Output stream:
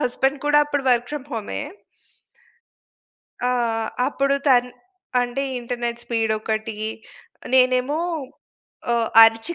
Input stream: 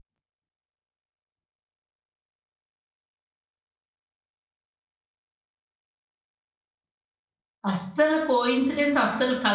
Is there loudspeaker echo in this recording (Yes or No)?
No